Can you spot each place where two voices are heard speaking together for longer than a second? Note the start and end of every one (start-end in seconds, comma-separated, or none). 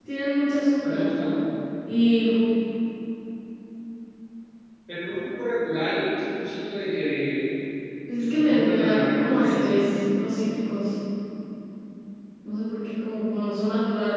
8.2-9.9